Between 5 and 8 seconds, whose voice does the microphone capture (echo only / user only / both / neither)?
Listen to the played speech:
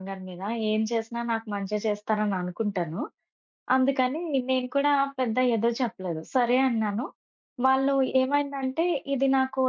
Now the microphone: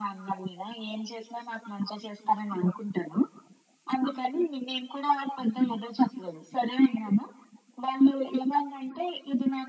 echo only